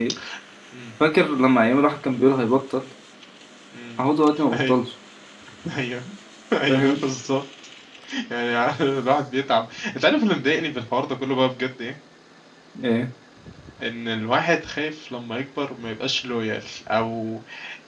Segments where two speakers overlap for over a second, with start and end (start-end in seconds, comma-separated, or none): none